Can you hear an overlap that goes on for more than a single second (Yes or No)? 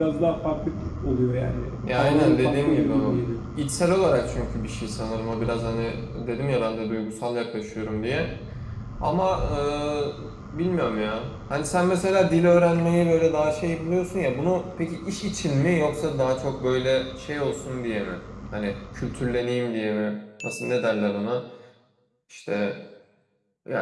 Yes